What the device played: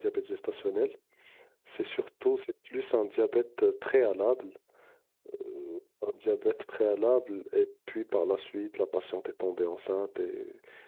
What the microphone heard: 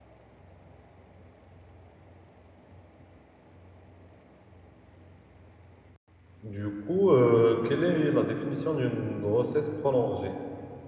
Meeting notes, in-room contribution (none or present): present